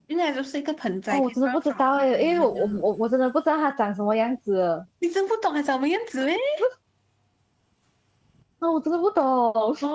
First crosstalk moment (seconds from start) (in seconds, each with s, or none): 1.1 s